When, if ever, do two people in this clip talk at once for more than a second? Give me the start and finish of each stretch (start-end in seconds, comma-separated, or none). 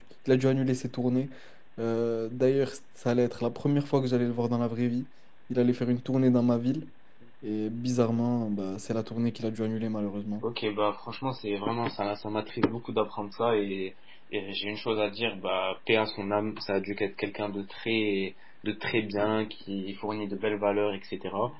none